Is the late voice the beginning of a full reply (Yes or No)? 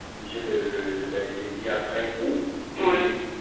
No